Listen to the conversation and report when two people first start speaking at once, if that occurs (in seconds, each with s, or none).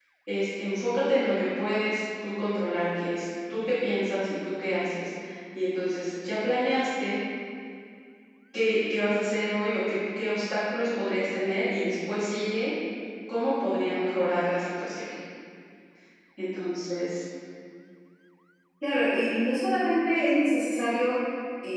none